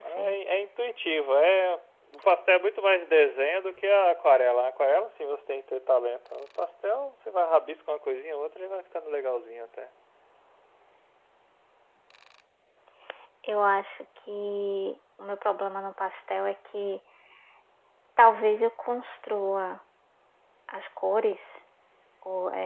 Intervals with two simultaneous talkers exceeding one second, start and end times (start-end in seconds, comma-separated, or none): none